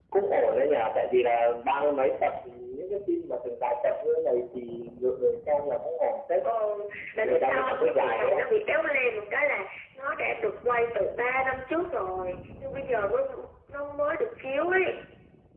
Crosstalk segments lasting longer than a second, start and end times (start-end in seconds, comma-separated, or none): 7.2-8.4